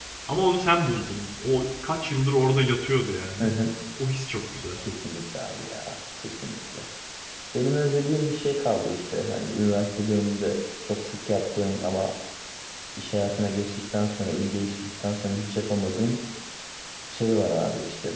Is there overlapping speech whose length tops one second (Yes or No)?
No